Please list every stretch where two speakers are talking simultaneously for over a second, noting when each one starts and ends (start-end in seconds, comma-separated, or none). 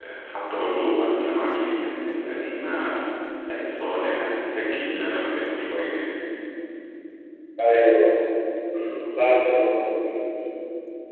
none